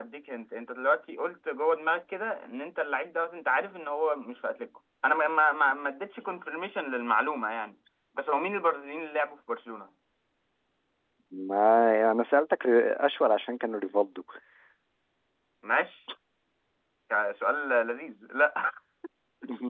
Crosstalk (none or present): none